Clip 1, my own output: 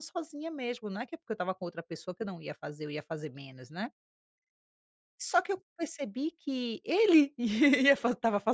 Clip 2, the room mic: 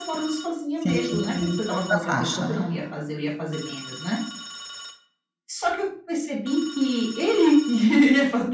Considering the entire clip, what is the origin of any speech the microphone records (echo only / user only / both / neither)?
both